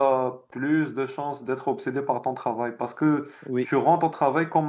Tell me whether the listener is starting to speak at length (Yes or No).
No